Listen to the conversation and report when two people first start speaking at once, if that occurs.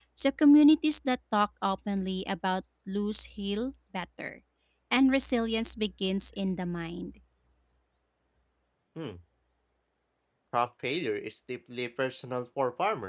none

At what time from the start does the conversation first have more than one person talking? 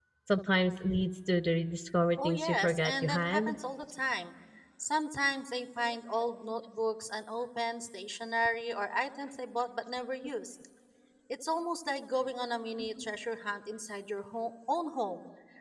2 s

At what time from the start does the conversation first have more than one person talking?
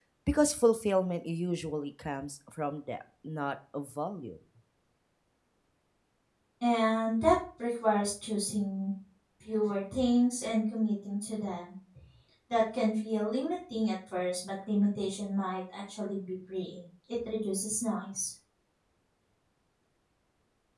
none

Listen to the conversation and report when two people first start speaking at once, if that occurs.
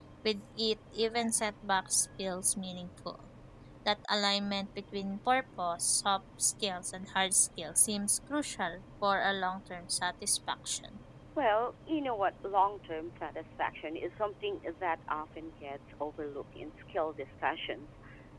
none

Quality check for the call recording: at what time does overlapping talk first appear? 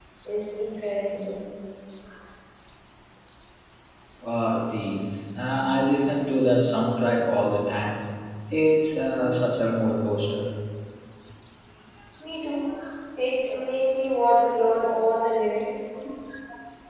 none

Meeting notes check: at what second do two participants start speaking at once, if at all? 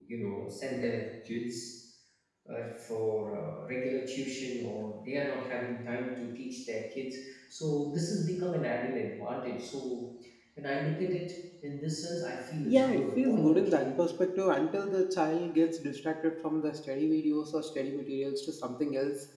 13 s

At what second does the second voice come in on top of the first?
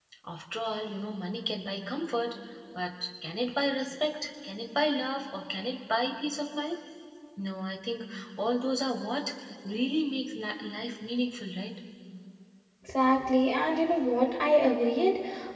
none

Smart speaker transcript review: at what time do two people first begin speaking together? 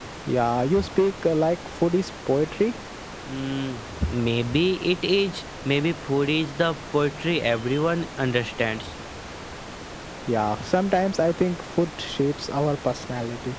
none

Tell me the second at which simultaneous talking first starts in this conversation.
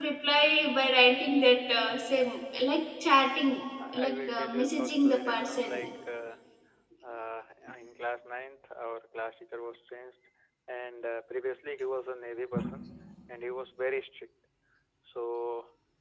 4 s

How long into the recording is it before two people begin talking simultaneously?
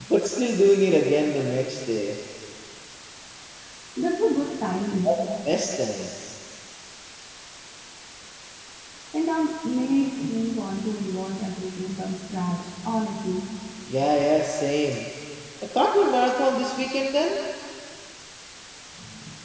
none

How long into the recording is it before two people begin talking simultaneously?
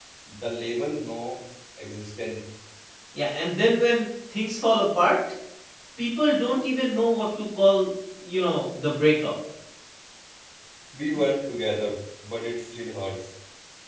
none

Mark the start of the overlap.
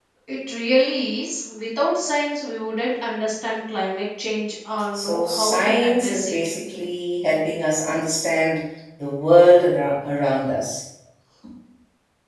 5 s

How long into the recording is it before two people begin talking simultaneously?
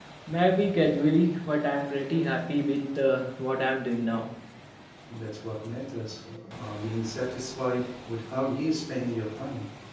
none

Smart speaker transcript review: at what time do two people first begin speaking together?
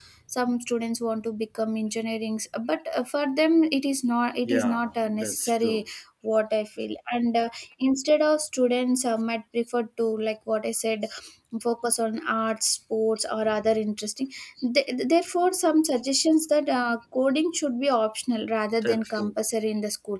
4 s

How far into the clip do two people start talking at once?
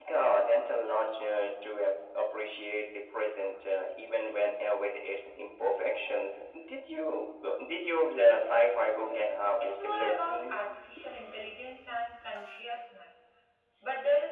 9 s

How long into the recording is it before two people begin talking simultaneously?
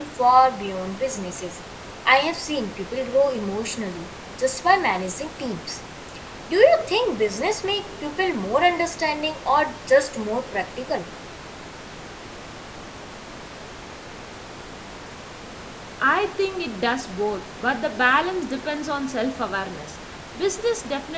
none

